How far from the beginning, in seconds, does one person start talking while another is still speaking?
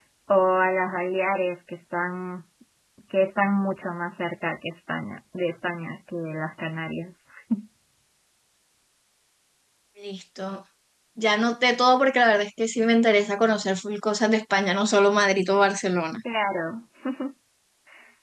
none

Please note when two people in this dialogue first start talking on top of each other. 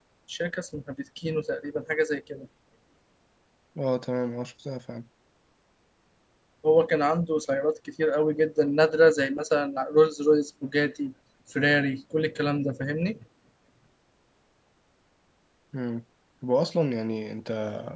none

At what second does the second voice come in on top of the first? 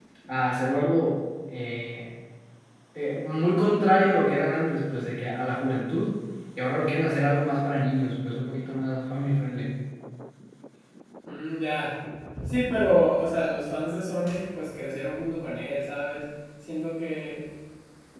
none

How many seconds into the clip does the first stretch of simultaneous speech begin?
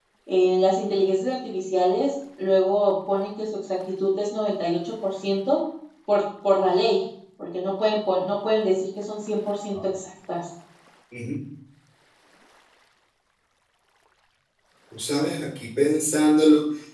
none

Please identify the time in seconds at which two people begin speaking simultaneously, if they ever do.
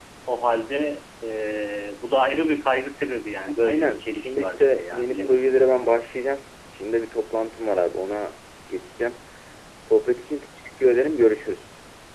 3.7 s

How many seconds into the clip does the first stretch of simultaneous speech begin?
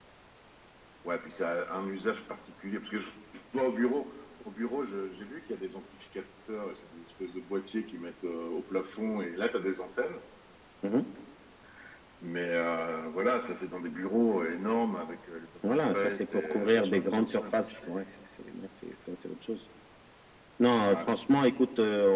15.6 s

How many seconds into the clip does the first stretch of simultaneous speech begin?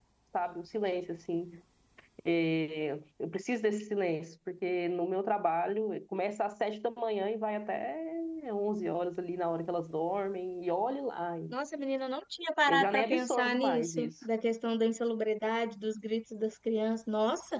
12.7 s

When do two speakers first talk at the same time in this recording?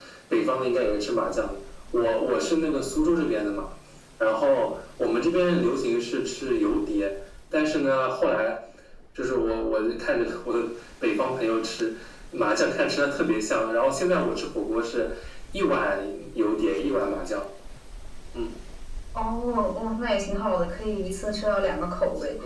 none

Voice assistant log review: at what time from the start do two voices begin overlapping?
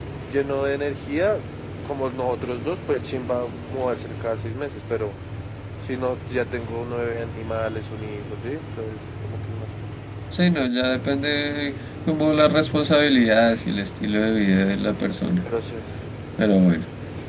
none

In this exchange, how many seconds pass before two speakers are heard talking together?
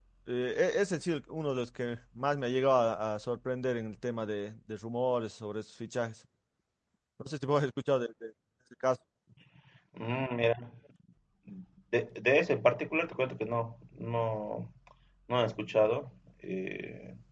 none

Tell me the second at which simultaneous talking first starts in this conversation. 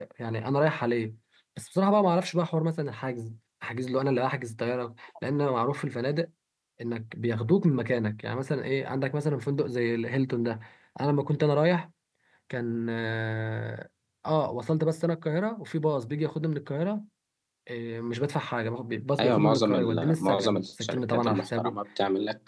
19.2 s

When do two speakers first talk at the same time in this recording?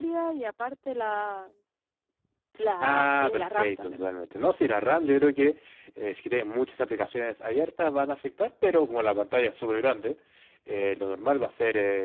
2.8 s

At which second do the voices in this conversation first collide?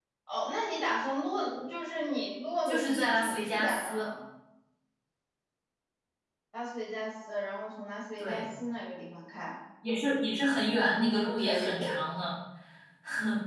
2.6 s

